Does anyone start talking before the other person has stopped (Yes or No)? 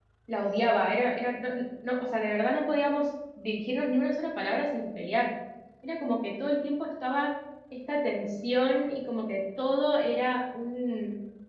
No